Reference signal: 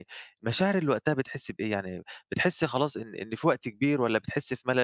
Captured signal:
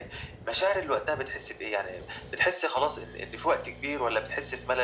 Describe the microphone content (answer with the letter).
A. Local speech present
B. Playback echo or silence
B